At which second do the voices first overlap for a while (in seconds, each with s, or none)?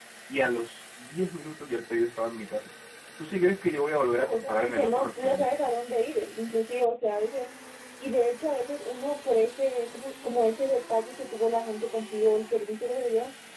4.2 s